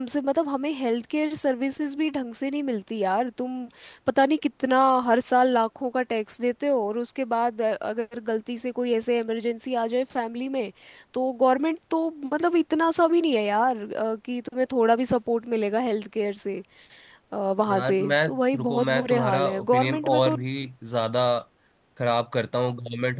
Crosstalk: present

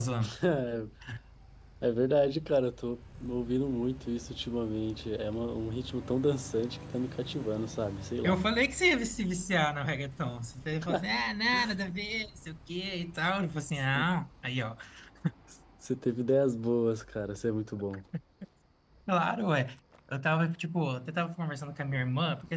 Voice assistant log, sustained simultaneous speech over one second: none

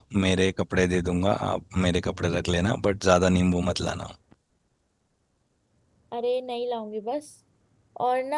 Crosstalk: none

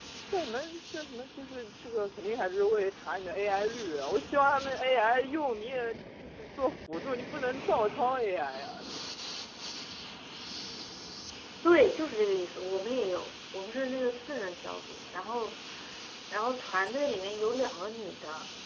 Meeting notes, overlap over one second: none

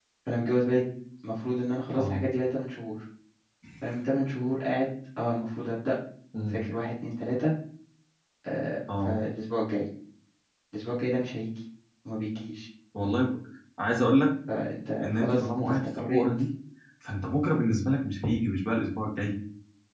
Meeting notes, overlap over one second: present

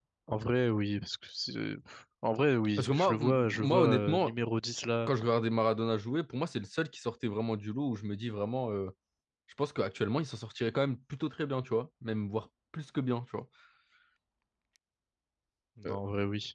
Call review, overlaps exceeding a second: present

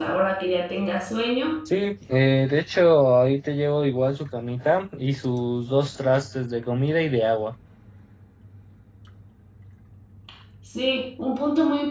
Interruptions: none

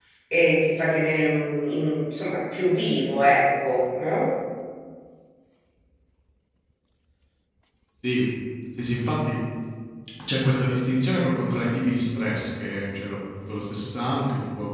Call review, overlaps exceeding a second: none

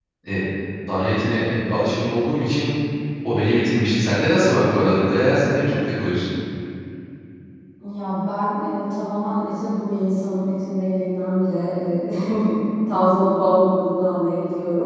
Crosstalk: none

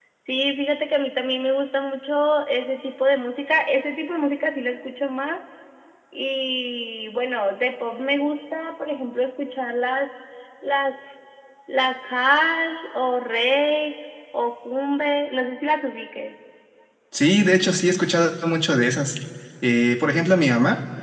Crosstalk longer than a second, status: none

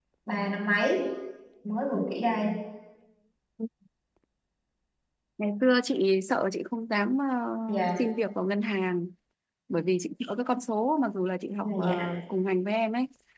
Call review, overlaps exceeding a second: none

